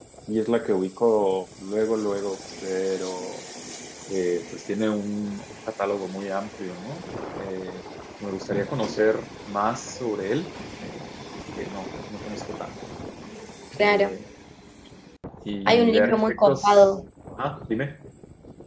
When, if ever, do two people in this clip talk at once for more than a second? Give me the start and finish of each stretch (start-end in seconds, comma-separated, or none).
15.7-16.9